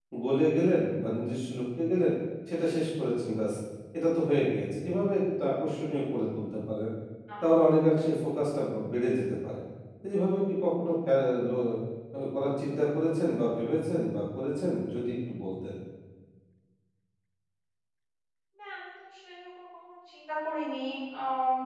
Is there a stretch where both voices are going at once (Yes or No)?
No